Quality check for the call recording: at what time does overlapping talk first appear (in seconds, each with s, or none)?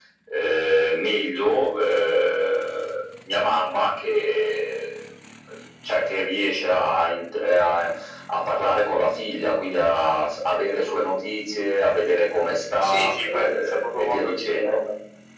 12.8 s